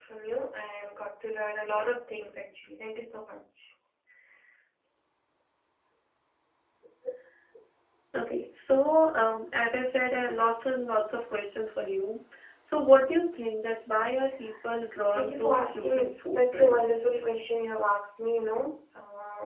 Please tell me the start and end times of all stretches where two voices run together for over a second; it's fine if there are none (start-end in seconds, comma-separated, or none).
15.1-17.0